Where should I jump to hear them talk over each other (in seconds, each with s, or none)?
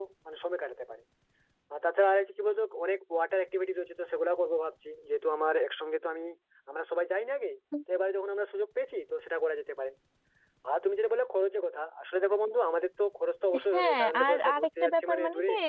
13.5 s